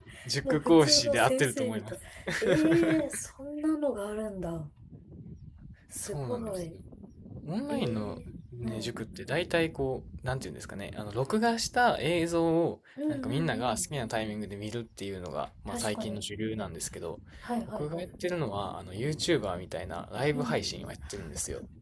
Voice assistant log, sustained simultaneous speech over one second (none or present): present